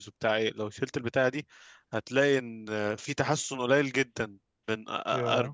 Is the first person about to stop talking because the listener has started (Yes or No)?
No